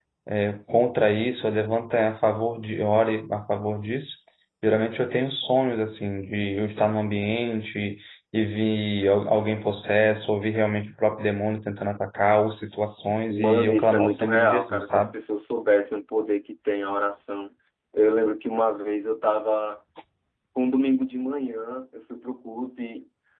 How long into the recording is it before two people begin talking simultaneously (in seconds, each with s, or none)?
13.3 s